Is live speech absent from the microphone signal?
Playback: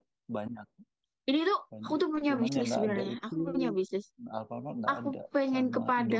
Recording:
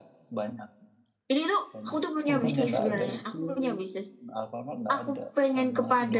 No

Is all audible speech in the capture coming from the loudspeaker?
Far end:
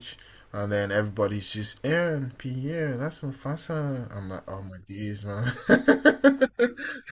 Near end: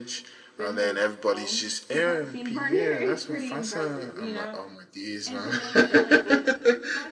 No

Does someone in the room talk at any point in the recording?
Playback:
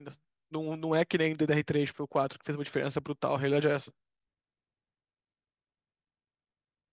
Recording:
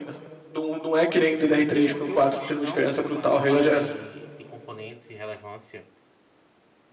Yes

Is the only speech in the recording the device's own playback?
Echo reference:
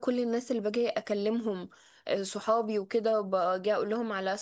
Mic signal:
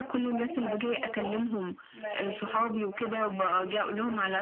No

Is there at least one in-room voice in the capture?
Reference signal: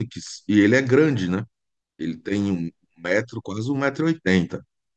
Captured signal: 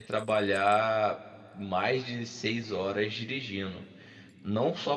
Yes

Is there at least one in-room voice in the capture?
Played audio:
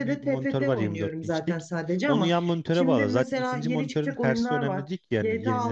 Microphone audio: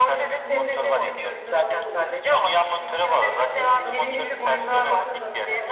Yes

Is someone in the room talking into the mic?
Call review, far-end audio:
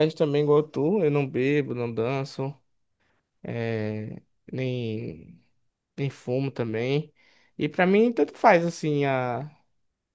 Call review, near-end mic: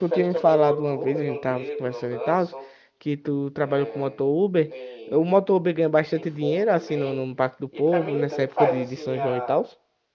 Yes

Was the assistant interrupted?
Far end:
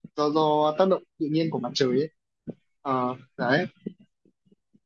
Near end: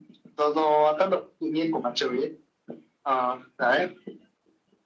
No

